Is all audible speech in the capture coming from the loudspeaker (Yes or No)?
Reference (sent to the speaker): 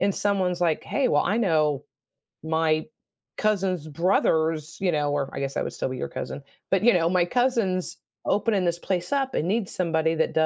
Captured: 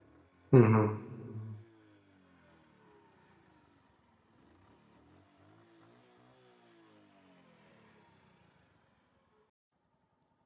No